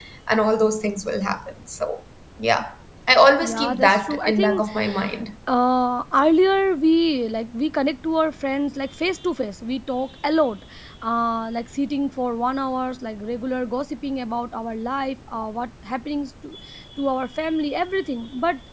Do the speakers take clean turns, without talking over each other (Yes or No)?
No